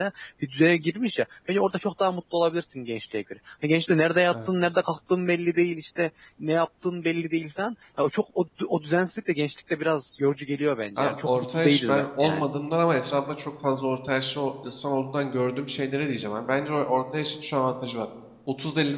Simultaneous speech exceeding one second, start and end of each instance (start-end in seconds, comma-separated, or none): 11.0-12.4